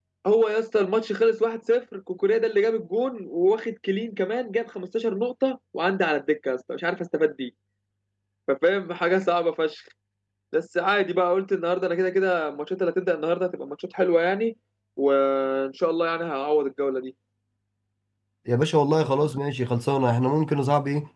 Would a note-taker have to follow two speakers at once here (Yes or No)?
No